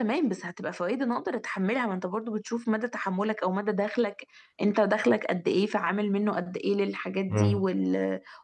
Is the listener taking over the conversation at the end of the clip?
No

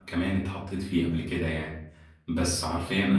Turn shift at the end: No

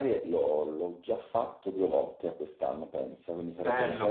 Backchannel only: No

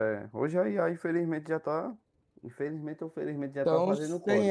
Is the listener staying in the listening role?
No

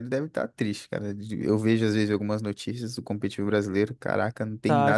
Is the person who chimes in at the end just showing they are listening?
No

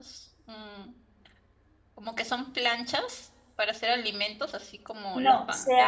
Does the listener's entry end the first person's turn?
Yes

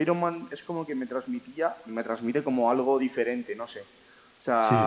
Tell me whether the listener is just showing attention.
Yes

